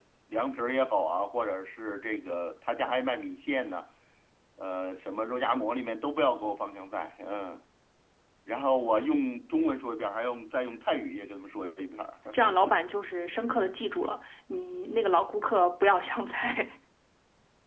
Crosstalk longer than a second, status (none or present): none